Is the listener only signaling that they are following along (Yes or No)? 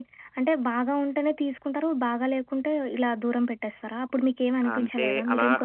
No